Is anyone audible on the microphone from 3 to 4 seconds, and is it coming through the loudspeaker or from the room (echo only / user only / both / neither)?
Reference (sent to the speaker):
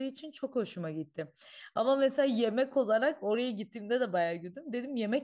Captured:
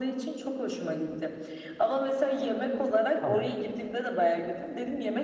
both